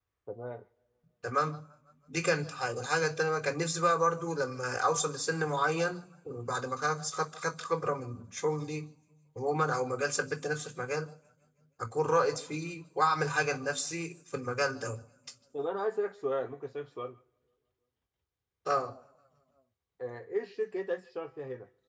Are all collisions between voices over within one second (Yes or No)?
Yes